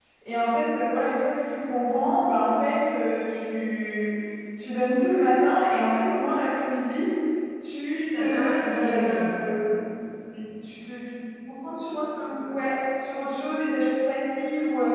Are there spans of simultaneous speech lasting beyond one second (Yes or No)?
Yes